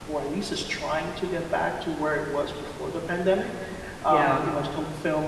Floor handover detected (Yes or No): No